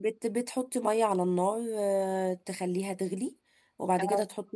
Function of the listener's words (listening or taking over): listening